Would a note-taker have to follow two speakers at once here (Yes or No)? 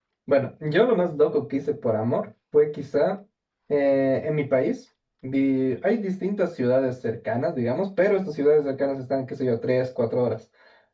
No